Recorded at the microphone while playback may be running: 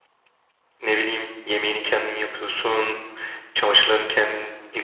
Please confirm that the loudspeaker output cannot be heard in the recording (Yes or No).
Yes